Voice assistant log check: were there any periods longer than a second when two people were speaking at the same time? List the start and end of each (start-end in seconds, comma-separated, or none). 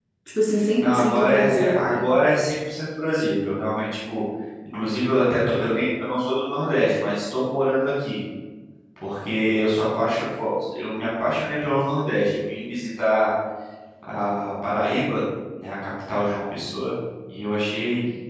0.8-2.0